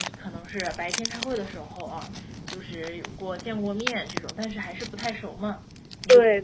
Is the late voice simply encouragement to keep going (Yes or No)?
Yes